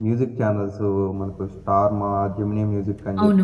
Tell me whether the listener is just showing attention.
No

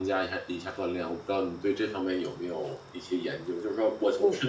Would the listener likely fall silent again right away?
Yes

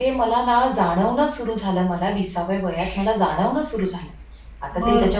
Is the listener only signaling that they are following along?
Yes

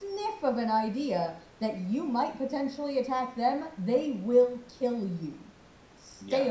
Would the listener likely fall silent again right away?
No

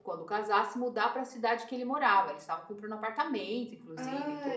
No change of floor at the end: No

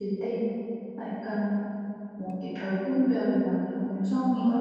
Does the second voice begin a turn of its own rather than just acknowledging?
No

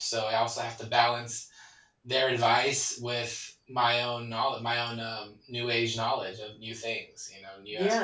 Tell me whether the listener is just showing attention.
No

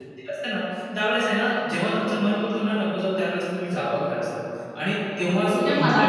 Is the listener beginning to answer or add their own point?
Yes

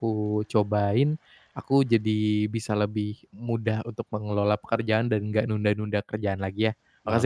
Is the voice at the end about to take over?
Yes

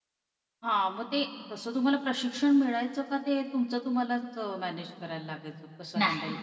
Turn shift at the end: Yes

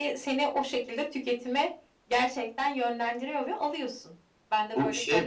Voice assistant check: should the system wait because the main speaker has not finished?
No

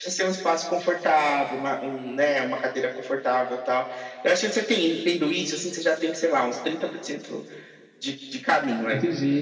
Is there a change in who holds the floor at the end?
No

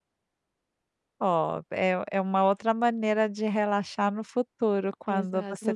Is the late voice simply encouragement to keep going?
No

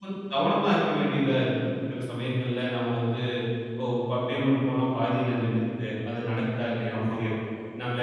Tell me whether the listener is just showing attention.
Yes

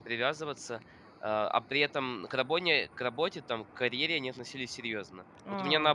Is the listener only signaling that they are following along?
Yes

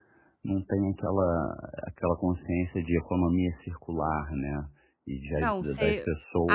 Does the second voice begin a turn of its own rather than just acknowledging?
Yes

